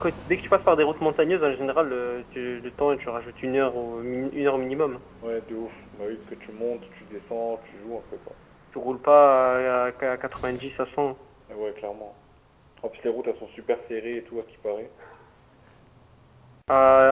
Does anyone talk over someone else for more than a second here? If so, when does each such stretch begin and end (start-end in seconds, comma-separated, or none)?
none